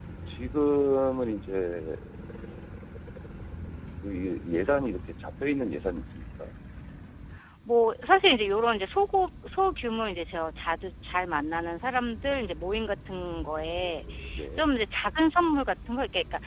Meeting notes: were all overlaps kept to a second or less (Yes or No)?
Yes